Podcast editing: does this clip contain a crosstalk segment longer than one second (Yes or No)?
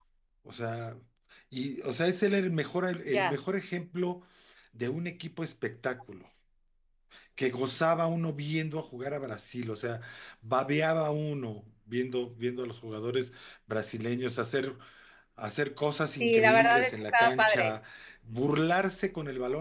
Yes